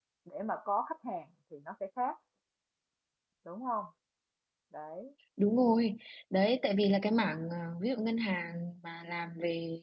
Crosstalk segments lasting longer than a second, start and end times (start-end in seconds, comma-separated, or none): none